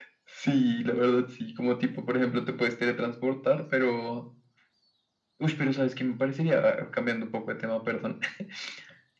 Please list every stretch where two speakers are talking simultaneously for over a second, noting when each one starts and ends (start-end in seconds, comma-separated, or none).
none